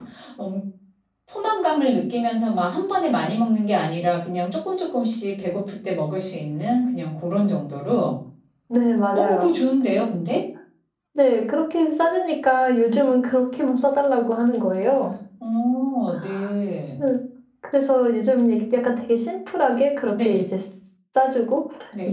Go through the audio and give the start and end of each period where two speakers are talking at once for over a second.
none

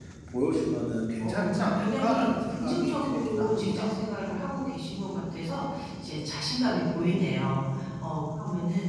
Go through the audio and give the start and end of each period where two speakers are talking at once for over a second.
1.2-3.9

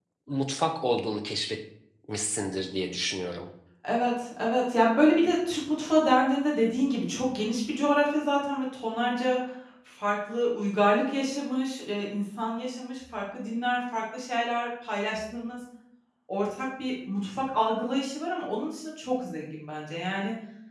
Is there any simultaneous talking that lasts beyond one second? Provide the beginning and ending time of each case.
none

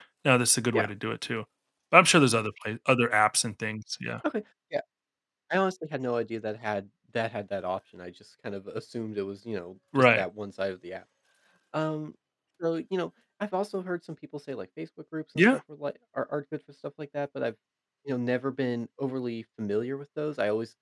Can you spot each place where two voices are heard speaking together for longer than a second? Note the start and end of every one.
none

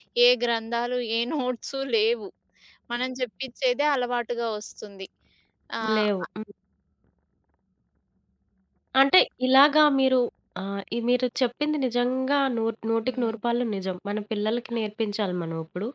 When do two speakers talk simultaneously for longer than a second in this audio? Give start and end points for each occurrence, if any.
none

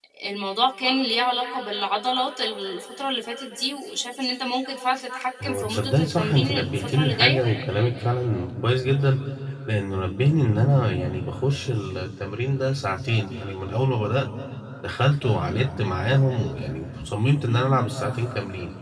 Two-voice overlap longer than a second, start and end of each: 5.4-7.4

